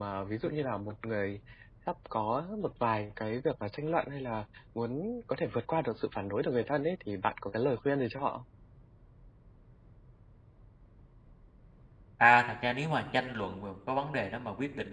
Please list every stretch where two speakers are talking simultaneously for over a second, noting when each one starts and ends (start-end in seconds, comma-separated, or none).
none